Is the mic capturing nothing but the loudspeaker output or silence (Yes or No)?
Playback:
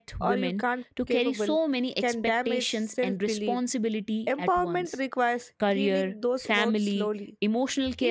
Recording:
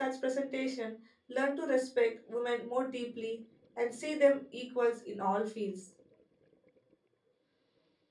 No